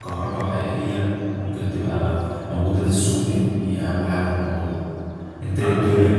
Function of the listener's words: taking over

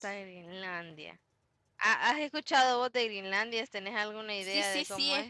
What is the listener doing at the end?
taking over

